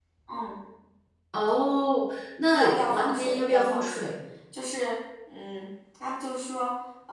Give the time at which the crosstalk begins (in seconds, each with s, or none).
2.5 s